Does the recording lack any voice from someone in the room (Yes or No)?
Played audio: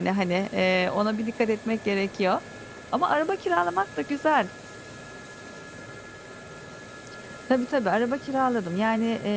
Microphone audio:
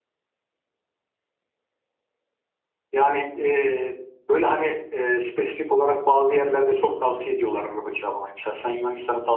No